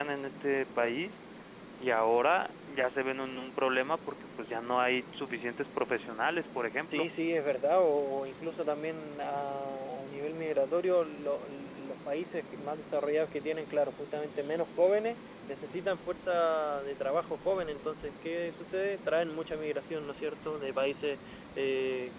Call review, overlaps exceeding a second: none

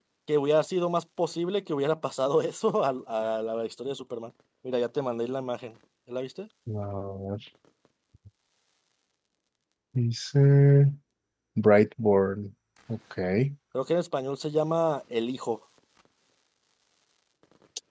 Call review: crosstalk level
none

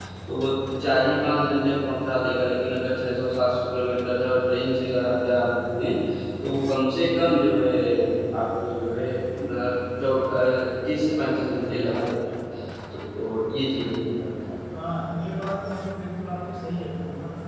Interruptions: none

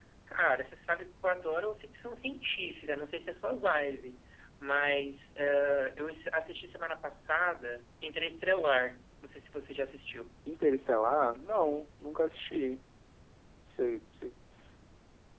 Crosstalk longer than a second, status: none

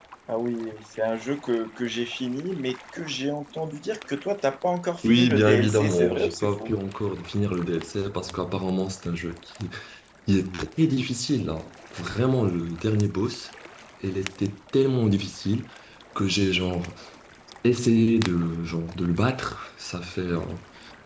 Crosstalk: present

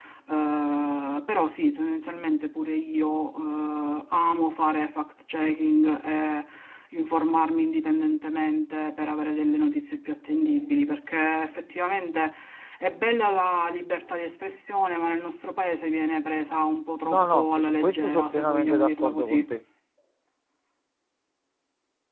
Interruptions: present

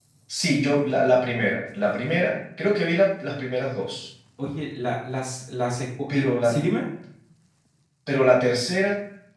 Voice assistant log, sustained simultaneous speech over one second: none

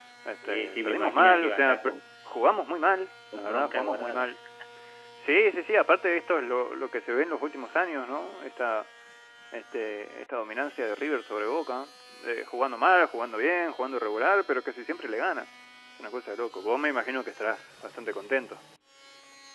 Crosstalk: present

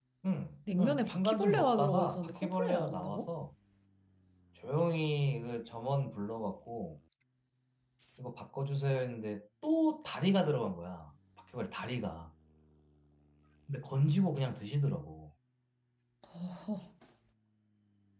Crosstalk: present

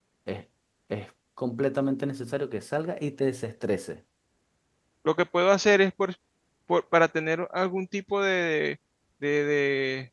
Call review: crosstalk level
none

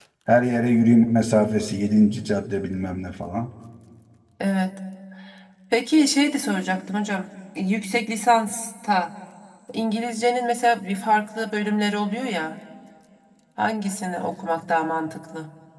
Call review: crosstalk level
none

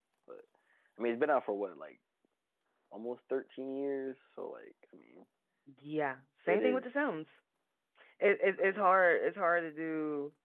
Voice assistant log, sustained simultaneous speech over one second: none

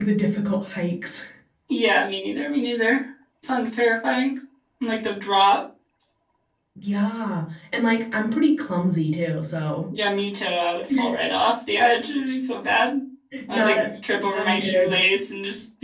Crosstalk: present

